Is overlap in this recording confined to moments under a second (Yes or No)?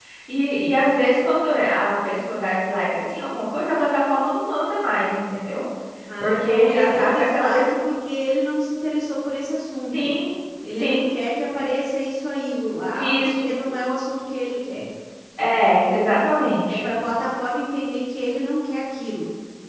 No